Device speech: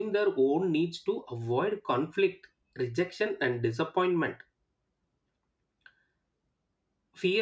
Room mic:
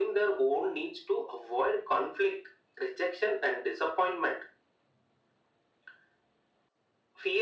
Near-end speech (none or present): none